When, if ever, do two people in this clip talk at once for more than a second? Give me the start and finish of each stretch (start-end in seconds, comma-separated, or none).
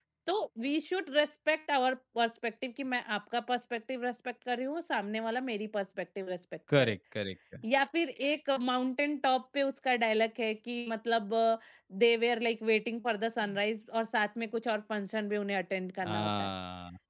none